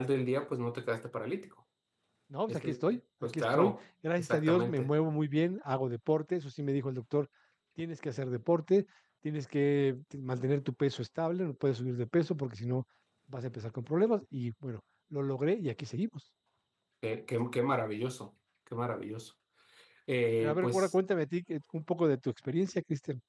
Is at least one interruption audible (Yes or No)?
Yes